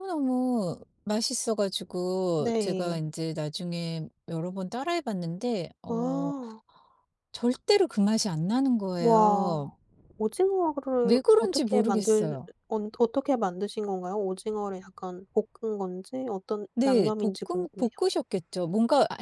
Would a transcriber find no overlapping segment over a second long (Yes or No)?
No